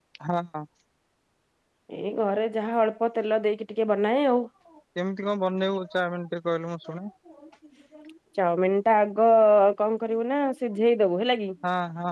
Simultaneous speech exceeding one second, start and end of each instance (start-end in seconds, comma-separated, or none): none